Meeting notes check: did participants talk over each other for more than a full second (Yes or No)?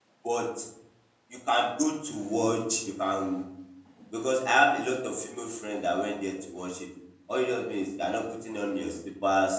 No